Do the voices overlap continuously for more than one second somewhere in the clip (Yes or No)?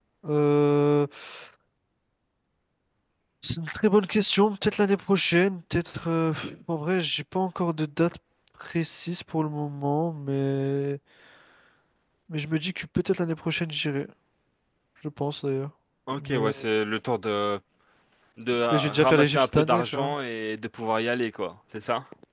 Yes